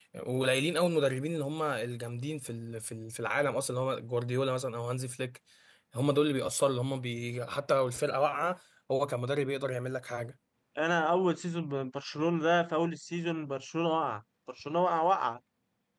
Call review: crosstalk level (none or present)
none